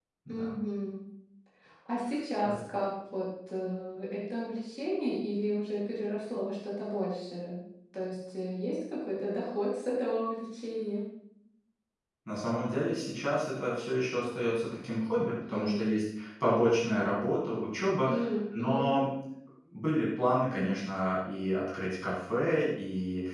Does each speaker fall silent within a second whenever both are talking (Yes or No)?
Yes